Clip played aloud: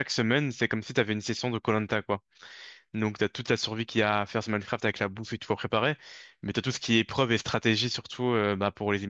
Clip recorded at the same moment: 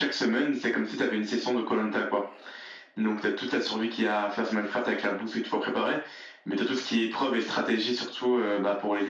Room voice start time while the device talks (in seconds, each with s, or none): none